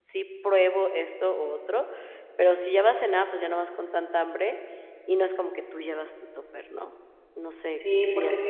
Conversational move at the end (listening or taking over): taking over